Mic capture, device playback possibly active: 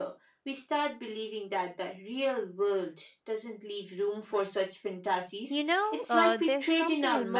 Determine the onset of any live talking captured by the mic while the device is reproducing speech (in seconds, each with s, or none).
5.5 s